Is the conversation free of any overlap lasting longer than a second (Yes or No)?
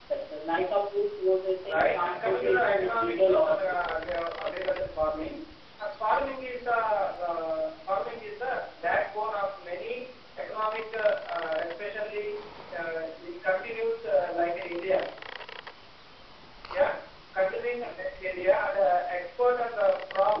No